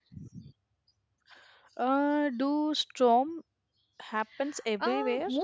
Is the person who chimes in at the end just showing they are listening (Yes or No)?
No